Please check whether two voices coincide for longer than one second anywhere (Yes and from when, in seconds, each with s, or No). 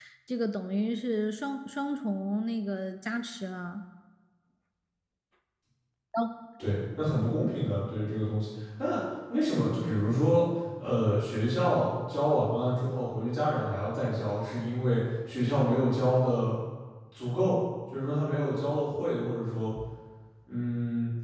No